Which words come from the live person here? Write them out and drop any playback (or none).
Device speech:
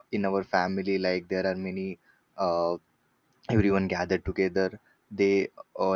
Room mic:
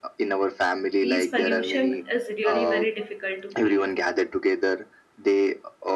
these pollution is really very difficult to breathe.